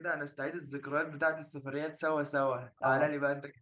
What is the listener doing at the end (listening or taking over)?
listening